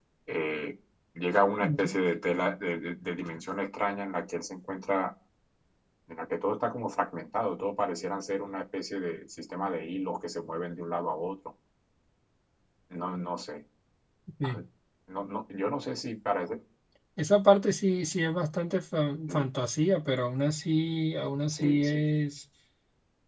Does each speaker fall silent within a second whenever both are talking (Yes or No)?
Yes